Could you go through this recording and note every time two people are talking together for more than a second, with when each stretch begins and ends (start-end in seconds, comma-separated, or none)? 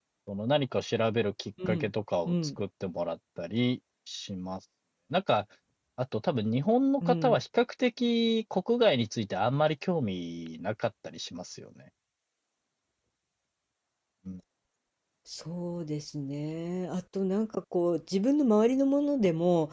none